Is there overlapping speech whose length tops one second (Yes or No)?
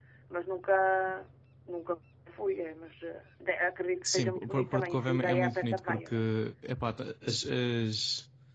Yes